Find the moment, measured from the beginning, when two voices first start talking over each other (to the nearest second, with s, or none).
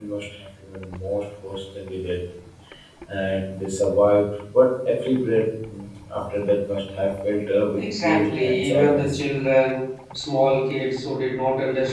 8 s